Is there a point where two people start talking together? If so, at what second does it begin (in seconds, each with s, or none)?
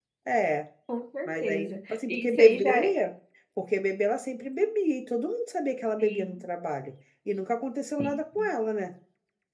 1.3 s